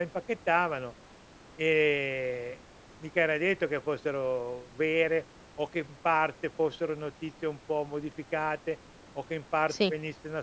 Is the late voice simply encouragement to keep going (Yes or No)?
Yes